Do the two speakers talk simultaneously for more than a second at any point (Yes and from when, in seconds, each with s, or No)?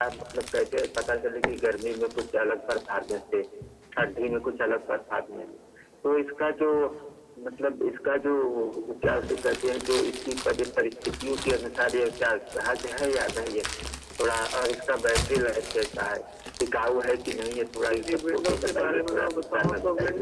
Yes, from 17.9 s